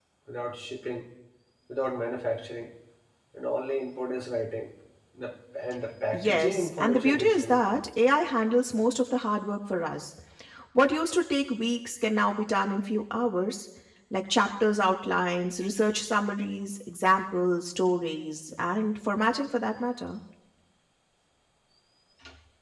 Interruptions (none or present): present